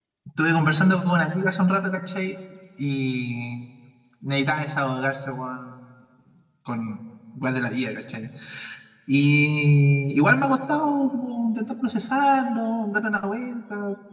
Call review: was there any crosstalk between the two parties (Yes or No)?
No